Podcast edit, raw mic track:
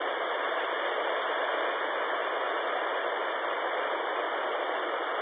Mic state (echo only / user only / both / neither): neither